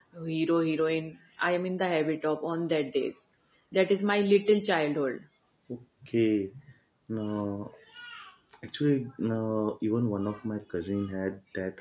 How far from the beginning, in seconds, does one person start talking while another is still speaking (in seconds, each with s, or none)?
none